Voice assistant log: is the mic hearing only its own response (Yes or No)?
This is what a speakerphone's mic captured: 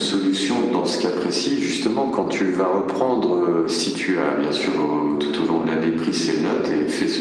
Yes